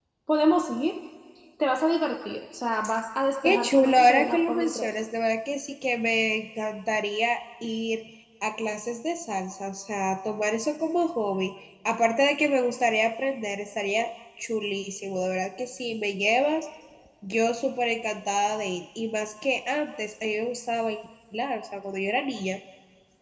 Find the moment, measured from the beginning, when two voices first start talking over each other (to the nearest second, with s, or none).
3 s